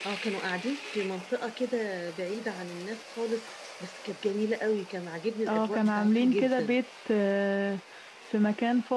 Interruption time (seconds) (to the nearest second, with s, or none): 5 s